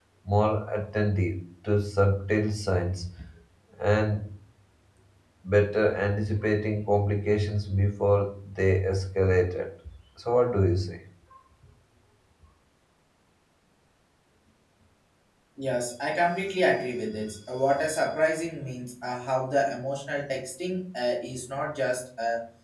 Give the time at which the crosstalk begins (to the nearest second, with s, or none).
none